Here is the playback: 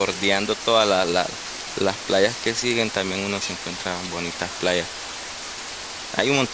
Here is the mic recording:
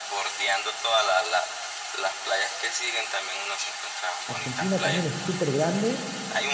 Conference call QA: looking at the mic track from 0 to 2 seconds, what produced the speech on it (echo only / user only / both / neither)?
echo only